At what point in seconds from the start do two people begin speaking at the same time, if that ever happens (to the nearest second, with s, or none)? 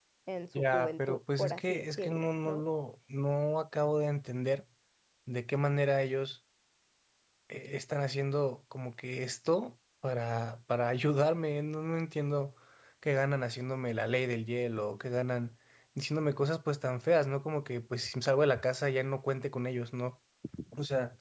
1 s